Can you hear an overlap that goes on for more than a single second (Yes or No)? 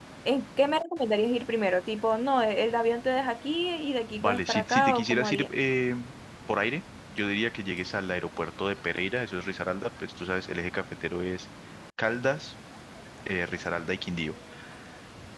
Yes